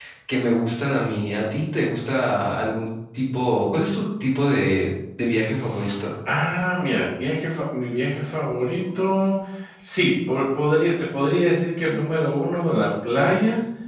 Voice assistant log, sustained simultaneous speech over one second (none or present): none